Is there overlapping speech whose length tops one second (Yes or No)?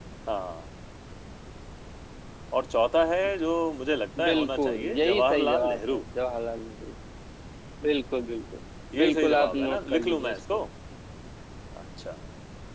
Yes